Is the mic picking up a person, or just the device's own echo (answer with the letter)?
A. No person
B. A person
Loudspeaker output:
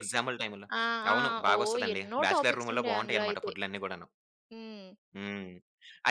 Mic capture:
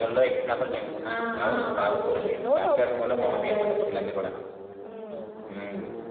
A